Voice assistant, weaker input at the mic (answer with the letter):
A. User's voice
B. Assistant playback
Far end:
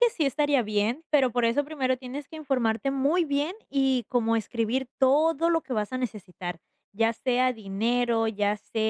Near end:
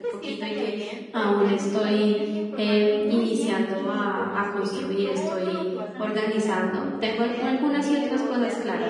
B